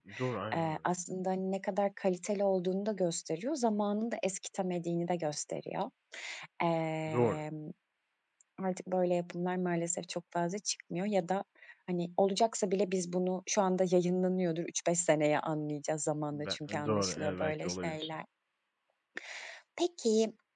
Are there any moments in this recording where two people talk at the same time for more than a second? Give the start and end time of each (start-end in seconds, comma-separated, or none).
16.4-18.1